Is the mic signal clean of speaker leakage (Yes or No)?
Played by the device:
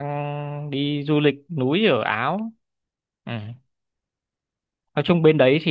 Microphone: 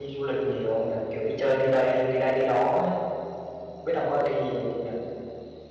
Yes